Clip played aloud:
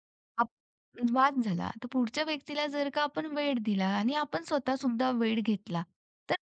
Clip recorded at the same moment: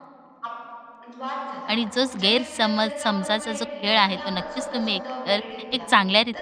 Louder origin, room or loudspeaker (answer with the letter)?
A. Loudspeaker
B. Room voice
B